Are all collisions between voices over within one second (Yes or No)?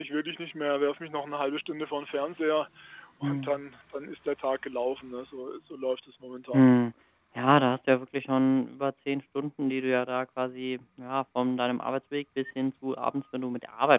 Yes